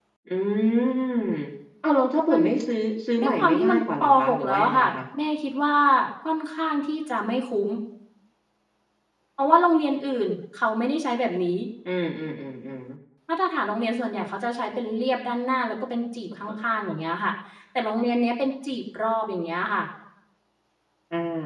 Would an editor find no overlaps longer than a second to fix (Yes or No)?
No